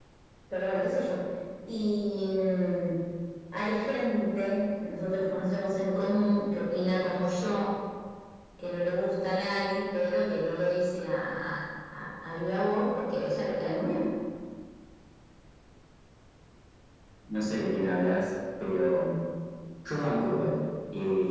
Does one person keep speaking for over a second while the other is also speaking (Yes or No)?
No